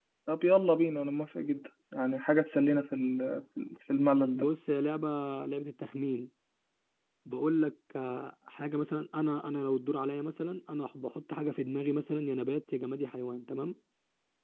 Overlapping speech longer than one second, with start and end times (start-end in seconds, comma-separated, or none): none